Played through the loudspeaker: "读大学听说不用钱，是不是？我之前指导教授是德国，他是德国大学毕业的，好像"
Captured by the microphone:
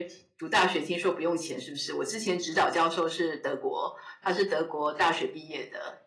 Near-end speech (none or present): none